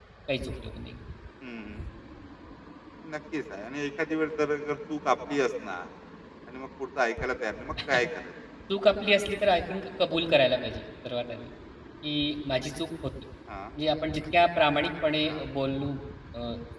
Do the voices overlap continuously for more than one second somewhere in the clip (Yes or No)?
No